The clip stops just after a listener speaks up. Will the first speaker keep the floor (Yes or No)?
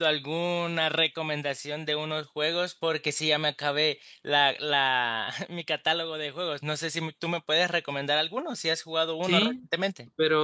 No